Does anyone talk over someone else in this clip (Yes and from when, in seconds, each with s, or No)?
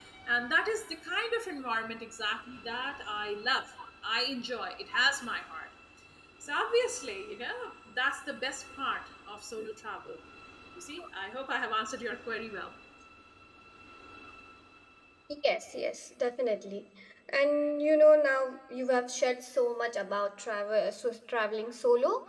No